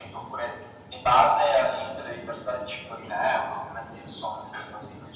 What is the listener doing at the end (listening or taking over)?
listening